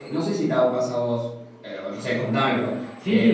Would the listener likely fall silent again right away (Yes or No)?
No